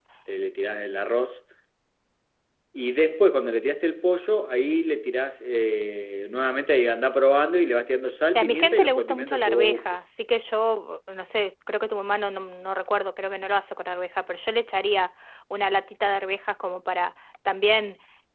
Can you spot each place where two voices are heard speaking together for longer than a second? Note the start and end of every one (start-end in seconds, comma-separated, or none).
8.4-9.8